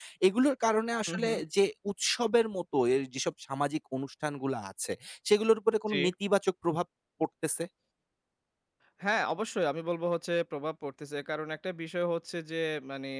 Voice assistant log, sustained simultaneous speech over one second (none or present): none